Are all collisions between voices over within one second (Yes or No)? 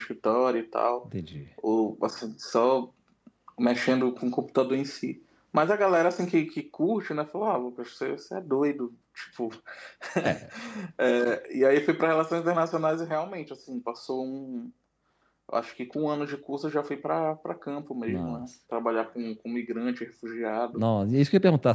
Yes